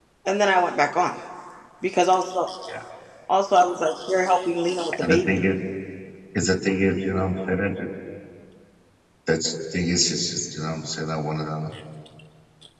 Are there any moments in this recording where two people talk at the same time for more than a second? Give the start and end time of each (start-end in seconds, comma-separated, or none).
none